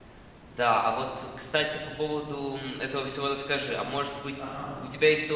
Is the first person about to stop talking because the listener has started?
No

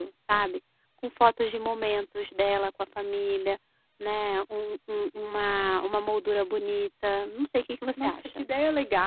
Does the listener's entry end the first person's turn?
Yes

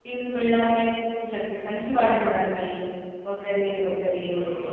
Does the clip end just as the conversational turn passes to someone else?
Yes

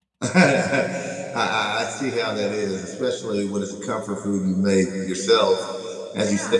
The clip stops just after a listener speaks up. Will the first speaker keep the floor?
Yes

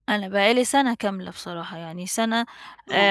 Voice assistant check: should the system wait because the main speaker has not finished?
Yes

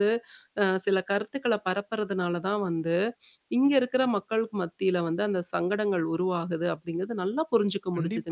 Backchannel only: No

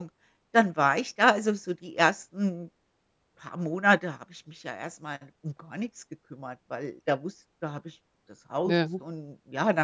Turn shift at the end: No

